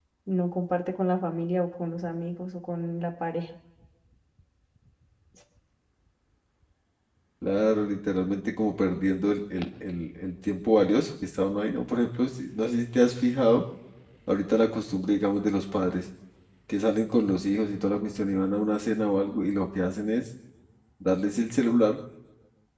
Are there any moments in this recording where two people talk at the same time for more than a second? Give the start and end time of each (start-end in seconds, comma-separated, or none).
none